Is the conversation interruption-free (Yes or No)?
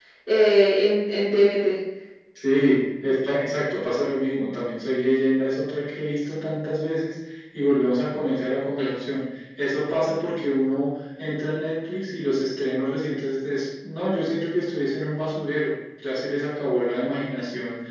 Yes